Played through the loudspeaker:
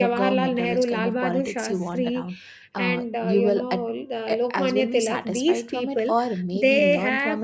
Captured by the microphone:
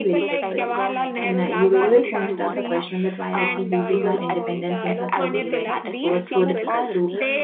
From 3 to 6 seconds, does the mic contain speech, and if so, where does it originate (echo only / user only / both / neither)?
both